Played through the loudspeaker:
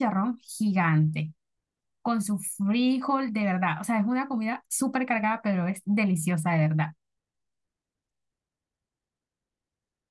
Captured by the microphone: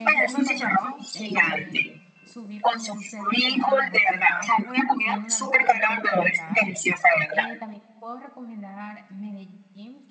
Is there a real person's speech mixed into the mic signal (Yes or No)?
Yes